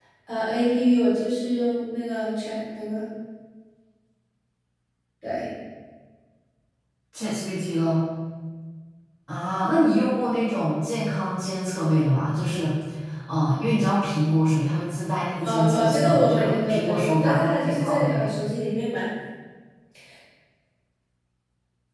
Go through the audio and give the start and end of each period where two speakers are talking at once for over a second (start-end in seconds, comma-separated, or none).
15.4-18.3